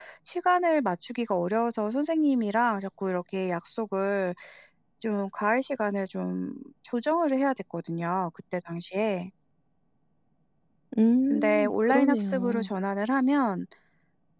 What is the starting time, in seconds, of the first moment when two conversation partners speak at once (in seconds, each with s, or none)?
11.3 s